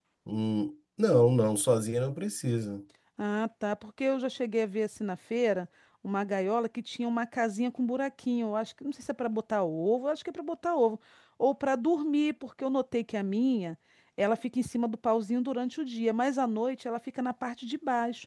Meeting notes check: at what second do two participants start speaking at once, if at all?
none

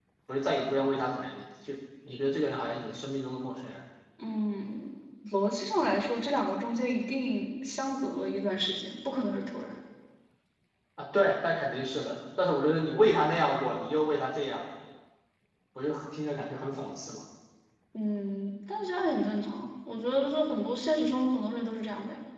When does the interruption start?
none

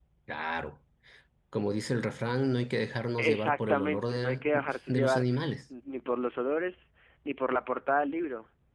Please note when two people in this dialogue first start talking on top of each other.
3 s

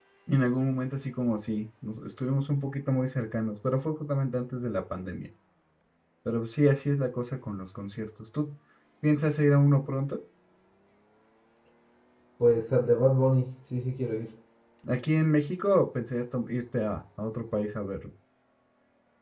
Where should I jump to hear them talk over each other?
none

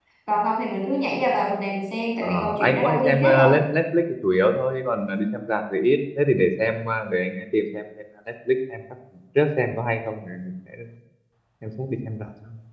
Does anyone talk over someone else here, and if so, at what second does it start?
2 s

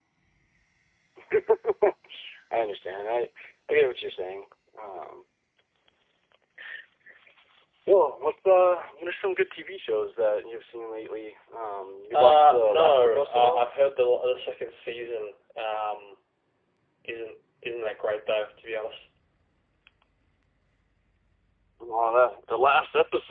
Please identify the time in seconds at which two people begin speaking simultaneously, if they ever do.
12 s

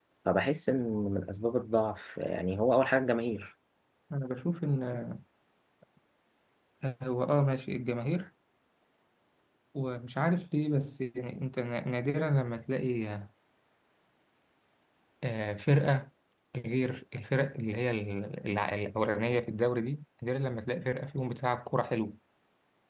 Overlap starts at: none

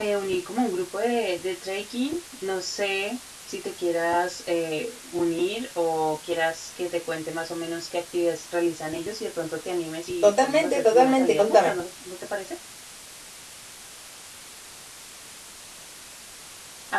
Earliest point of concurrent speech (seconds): 10 s

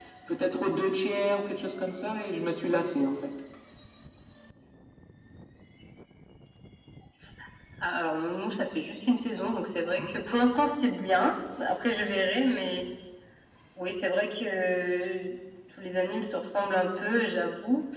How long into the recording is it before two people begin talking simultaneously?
none

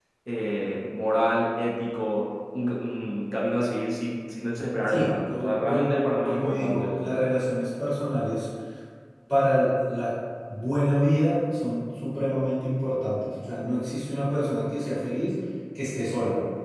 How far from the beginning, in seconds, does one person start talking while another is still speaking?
5 s

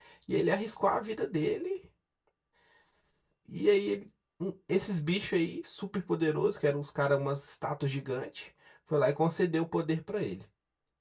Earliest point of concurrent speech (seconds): none

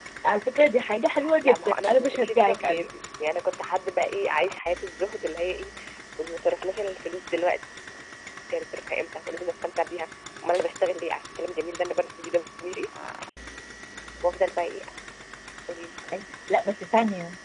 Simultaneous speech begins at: 1 s

